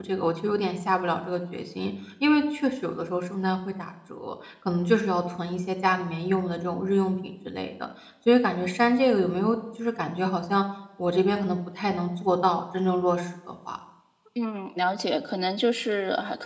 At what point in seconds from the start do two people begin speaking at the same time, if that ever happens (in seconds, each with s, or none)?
none